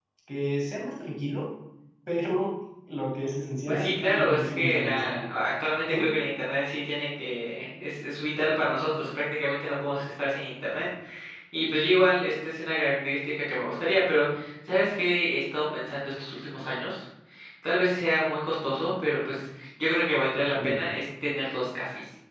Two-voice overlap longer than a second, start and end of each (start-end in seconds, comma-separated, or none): 3.7-5.3